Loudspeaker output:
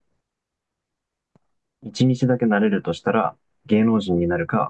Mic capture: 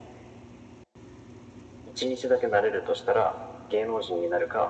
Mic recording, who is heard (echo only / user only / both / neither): echo only